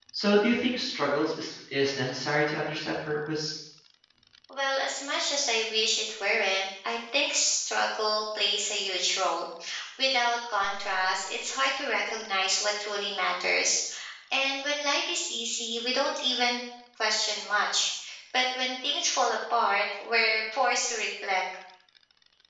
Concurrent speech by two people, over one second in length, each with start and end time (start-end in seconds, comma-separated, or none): none